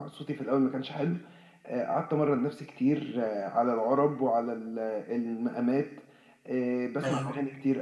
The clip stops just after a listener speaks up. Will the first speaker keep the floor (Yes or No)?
Yes